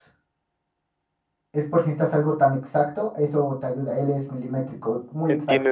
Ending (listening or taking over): taking over